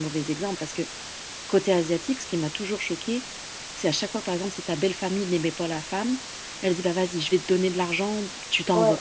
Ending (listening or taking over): listening